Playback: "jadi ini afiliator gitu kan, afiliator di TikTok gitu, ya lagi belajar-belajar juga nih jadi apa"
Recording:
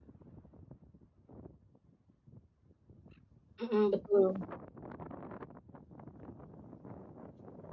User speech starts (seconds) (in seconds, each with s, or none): 3.6 s